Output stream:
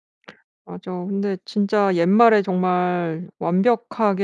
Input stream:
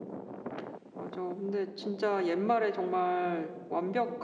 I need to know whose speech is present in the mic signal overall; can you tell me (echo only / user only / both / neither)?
echo only